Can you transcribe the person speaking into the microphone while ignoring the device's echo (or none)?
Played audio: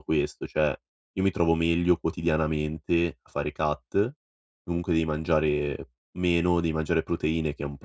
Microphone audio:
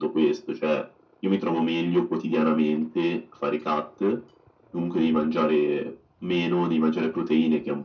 none